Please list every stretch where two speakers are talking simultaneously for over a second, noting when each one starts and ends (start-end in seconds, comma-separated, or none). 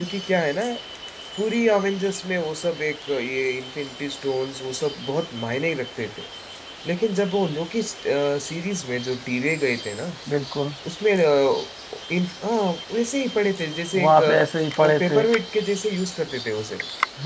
none